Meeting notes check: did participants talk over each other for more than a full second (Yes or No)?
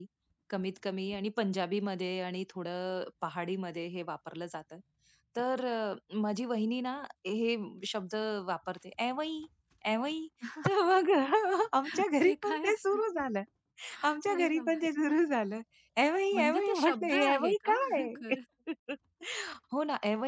Yes